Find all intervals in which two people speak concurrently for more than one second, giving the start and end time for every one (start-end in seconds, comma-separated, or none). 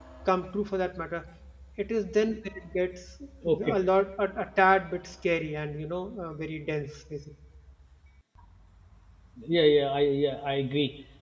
none